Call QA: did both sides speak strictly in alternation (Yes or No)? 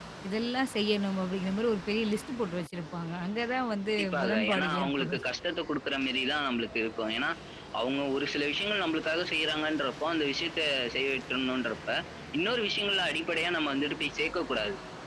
No